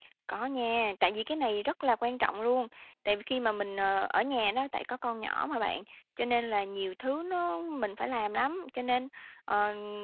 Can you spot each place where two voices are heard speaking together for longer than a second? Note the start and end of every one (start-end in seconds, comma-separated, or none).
none